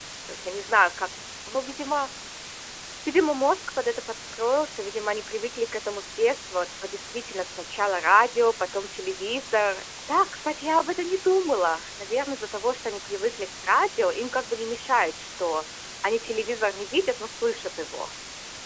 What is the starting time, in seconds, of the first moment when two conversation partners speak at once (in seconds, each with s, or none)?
none